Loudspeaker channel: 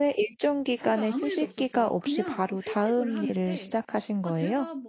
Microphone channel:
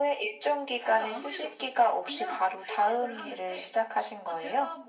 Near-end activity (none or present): none